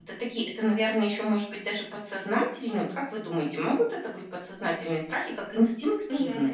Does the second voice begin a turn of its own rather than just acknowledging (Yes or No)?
Yes